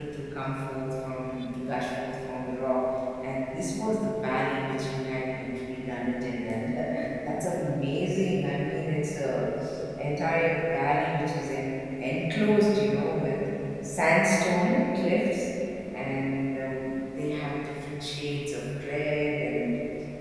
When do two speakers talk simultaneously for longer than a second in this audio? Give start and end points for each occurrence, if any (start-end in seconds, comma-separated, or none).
none